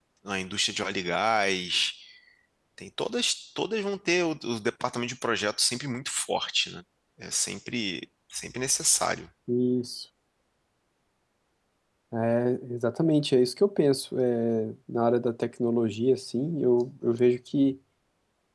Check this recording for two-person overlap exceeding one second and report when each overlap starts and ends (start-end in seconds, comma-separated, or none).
none